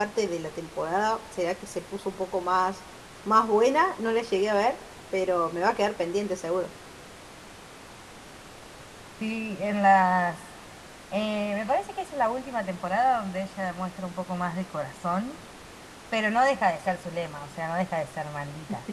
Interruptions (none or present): none